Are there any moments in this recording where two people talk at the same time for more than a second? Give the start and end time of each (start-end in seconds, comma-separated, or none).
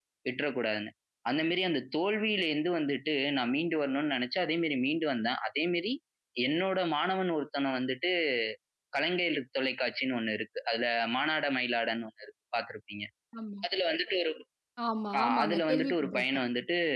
15.2-16.4